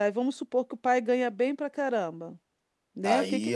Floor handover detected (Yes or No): Yes